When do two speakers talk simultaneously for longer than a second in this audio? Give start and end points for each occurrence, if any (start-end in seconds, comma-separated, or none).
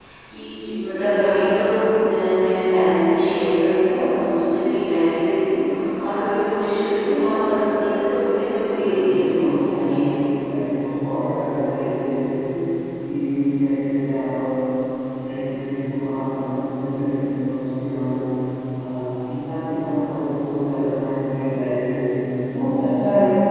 8.7-10.1